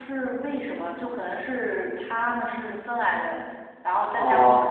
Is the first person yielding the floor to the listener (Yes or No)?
No